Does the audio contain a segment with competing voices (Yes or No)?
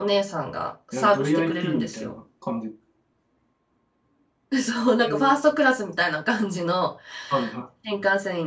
Yes